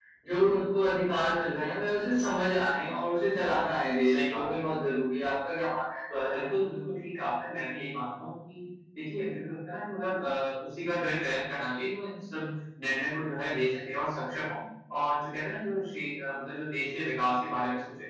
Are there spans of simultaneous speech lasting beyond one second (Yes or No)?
No